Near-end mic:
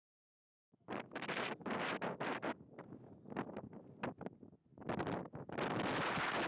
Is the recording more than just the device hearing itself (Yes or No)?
No